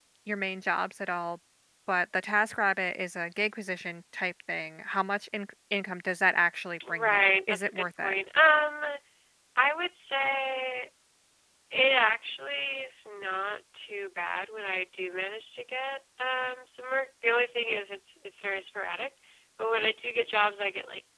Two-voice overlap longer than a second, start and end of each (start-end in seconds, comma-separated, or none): 6.9-8.1